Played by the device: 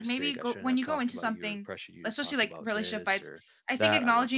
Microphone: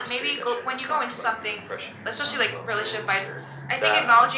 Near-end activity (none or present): none